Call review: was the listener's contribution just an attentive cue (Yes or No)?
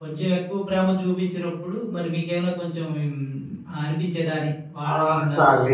No